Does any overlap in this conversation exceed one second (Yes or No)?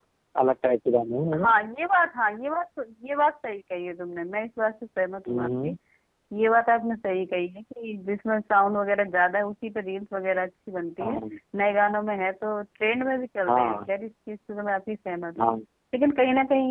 No